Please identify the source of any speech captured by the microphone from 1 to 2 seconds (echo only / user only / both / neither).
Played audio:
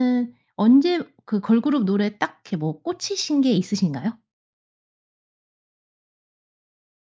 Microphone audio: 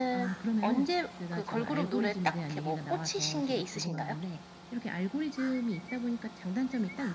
both